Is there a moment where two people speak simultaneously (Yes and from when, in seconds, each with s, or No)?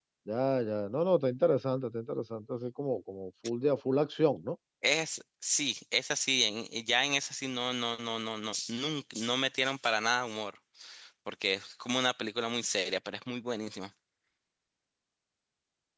No